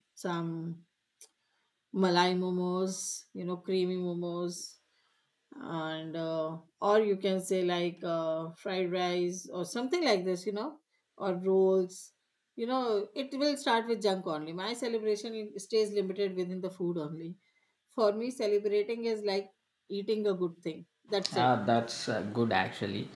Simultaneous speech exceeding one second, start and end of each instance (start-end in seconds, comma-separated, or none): none